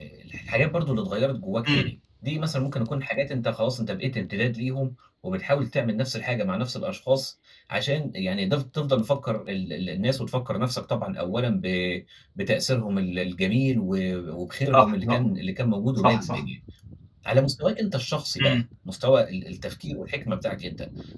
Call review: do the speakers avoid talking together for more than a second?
Yes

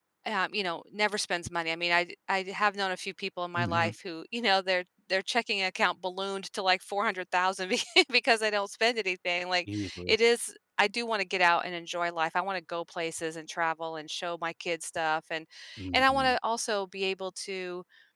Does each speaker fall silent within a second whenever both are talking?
Yes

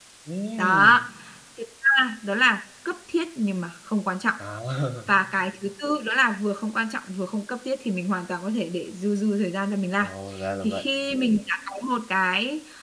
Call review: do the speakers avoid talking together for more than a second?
Yes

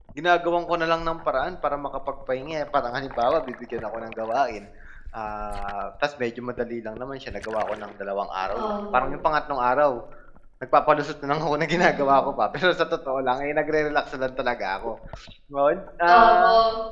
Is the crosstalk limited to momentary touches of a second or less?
Yes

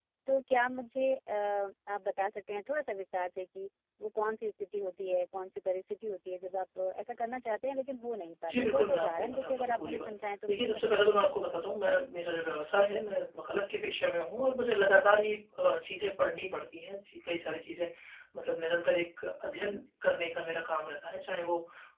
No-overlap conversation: No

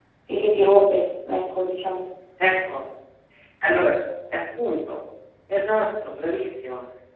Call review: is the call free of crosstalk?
Yes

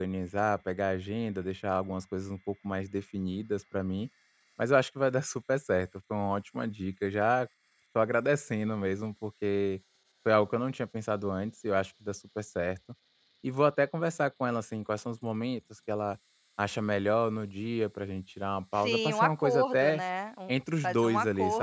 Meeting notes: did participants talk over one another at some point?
Yes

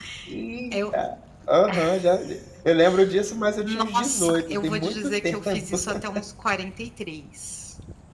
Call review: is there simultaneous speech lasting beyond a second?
Yes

